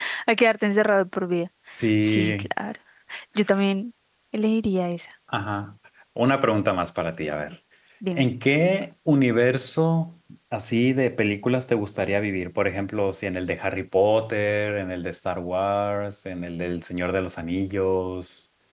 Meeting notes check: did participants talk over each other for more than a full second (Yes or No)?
No